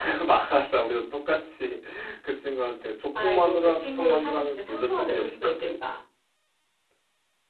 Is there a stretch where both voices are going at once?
Yes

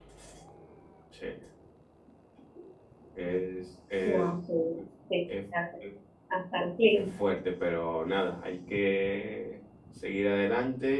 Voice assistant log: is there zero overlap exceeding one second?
Yes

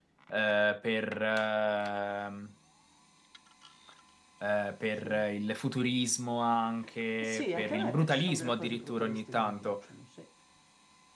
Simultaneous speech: Yes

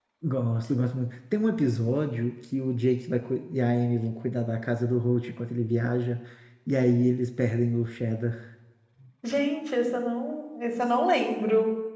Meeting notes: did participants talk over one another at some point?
No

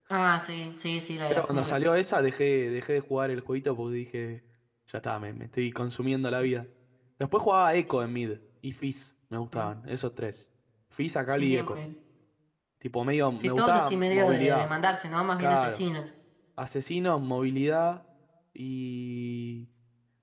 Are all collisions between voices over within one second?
No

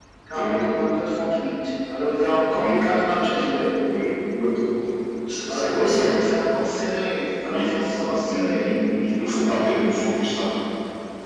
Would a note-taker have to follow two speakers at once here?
Yes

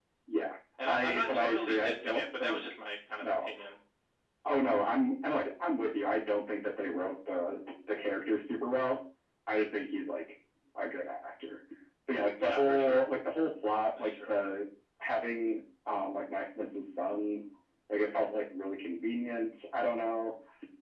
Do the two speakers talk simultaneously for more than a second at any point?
Yes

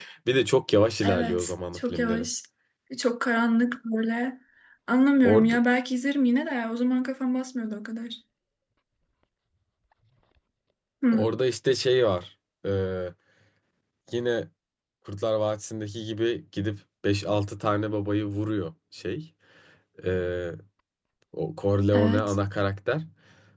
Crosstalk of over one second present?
Yes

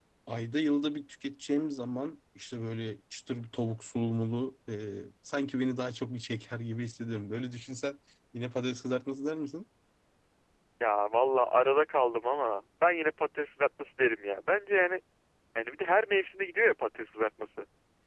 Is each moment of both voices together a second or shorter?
Yes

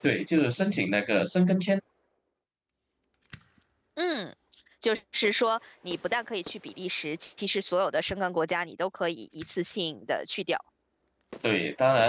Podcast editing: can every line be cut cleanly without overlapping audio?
Yes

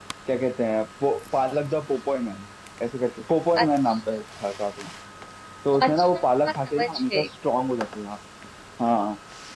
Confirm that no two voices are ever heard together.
No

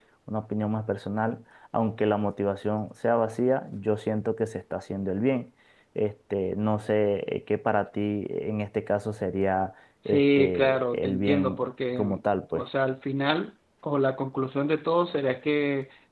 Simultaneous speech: Yes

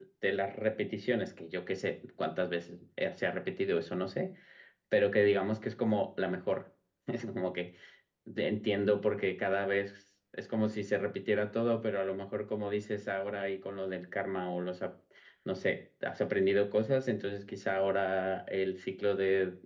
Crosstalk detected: No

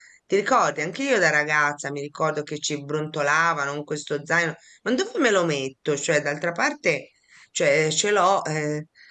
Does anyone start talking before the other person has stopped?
No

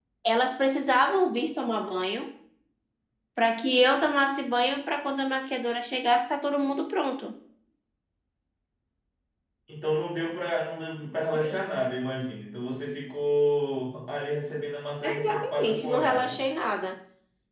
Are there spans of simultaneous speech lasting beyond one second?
Yes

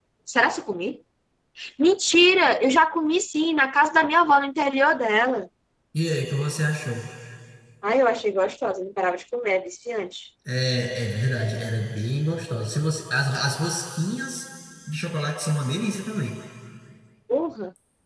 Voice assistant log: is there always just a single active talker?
Yes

